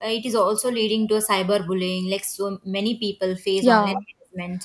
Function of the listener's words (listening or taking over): listening